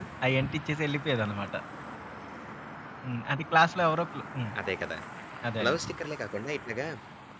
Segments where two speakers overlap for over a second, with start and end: none

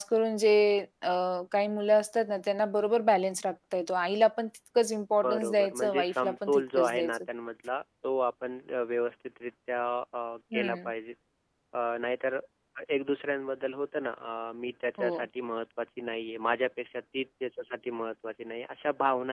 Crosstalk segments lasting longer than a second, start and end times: 5.2-7.2

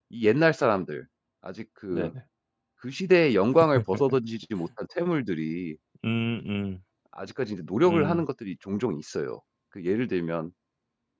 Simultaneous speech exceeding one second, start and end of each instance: none

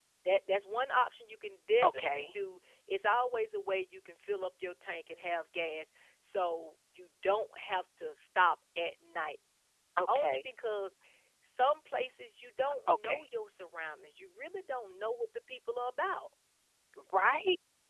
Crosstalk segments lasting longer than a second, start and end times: none

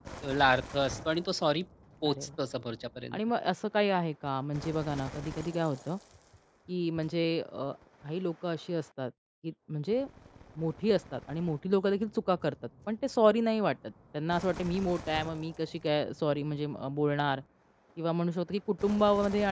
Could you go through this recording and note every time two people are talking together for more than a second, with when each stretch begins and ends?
none

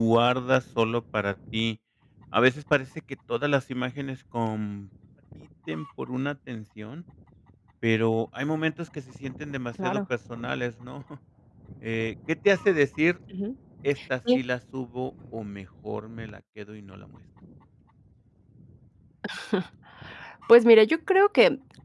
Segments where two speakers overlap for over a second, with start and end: none

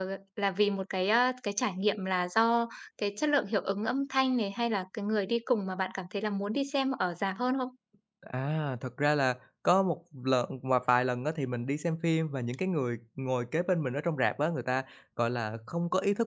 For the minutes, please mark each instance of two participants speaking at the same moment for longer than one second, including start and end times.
none

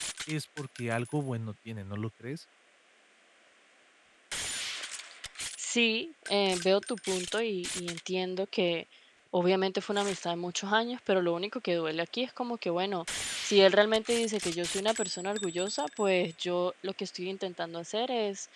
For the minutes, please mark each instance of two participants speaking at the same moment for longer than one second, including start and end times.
none

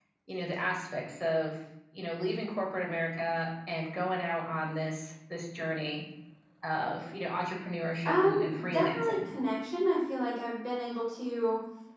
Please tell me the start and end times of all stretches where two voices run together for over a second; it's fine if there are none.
8.0-9.3

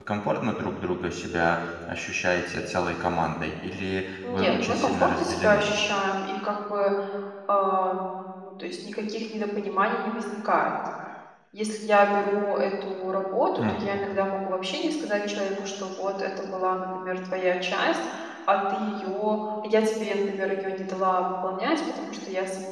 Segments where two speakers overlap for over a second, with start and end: 4.3-5.6

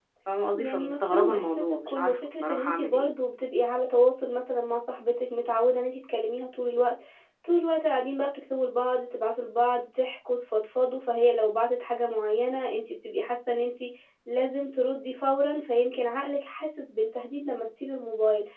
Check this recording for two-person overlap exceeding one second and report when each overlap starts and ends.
0.5-3.1

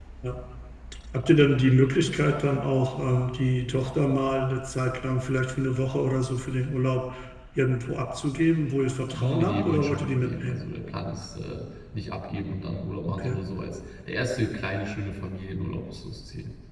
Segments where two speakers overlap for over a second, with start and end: 9.1-10.7

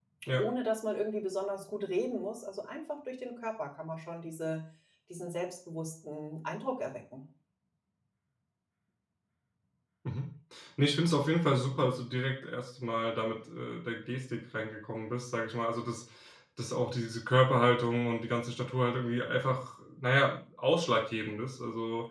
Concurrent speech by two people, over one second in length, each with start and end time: none

